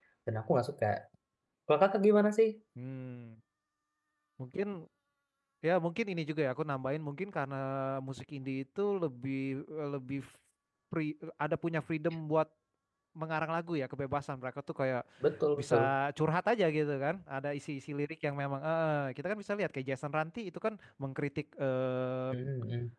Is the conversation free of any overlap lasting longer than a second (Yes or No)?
Yes